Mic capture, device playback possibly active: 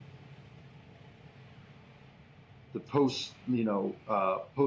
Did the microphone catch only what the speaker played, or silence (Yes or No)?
No